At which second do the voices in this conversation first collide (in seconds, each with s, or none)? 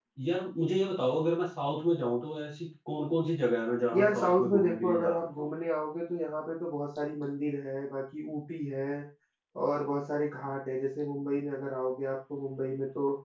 3.9 s